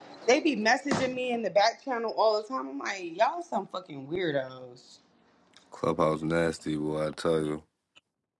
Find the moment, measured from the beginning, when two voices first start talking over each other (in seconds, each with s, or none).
none